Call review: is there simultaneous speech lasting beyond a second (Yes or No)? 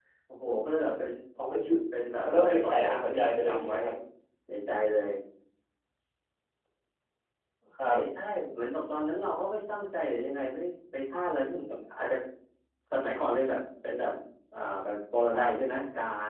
Yes